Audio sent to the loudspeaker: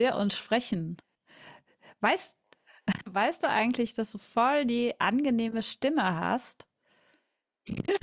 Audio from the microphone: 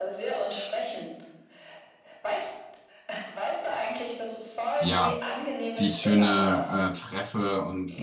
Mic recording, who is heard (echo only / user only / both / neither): both